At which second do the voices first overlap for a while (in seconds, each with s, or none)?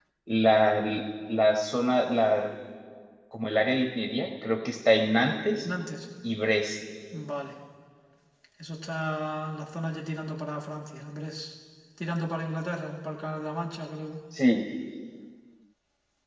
none